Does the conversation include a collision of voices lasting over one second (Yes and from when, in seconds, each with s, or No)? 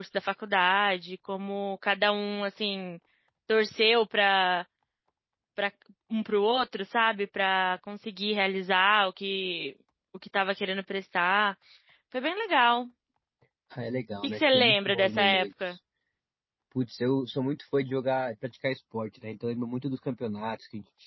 Yes, from 14.2 s